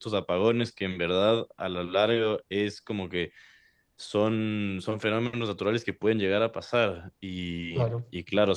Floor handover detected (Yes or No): No